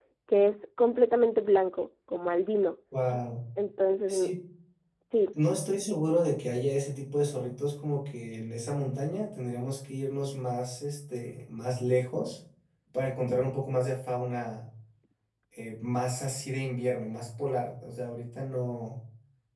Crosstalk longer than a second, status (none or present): none